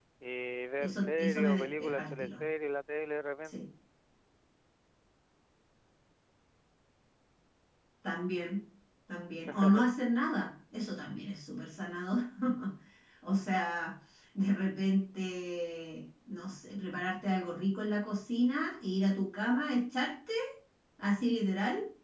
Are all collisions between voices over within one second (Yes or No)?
No